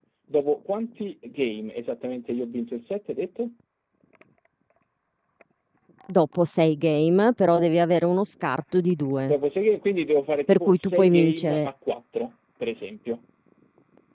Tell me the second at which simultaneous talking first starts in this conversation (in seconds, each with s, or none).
10.5 s